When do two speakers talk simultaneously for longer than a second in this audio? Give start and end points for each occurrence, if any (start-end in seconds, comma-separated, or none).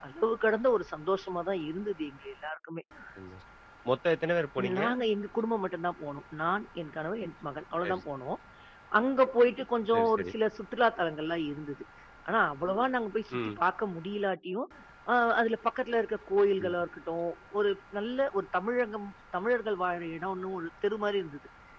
none